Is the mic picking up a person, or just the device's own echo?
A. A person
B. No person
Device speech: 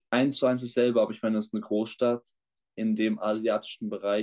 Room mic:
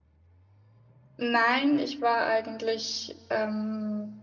A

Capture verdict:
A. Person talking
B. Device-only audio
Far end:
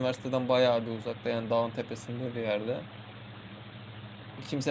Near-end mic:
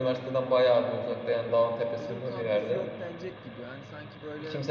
A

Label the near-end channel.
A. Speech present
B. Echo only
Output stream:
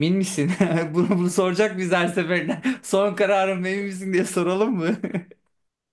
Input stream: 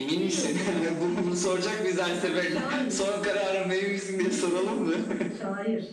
A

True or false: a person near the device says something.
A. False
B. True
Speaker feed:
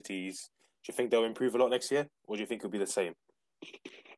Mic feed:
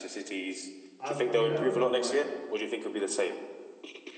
B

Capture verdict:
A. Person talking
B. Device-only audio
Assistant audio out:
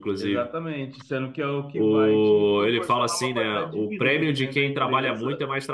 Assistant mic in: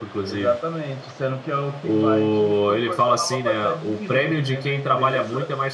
B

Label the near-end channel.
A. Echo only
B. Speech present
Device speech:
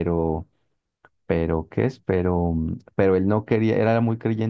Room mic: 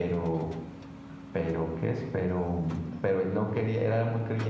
A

